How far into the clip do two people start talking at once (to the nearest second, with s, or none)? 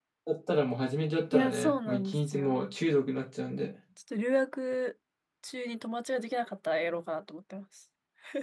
1 s